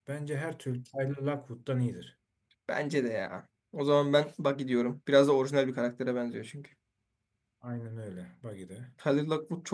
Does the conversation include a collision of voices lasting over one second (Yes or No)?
No